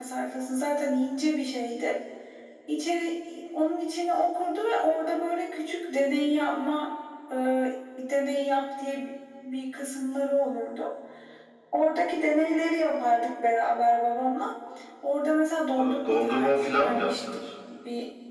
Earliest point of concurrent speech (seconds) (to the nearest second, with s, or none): 16 s